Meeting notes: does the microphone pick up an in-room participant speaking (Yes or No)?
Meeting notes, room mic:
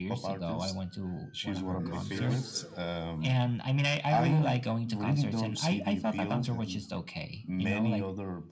Yes